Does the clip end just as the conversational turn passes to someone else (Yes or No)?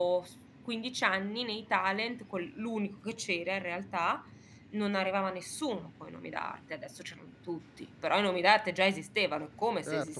Yes